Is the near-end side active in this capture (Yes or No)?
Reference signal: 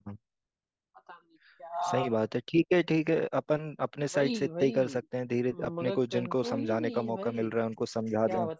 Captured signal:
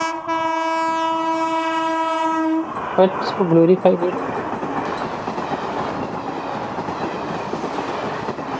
Yes